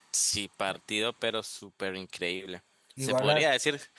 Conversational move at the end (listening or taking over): listening